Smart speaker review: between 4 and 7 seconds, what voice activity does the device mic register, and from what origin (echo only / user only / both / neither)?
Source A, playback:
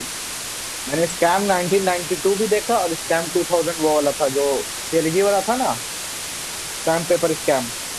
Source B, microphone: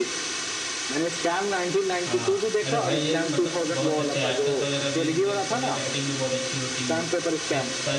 both